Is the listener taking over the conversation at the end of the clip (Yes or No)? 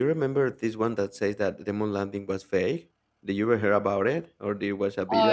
Yes